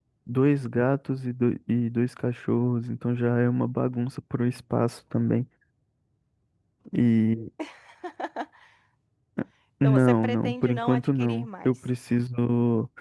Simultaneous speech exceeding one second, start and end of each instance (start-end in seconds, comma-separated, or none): 9.8-11.7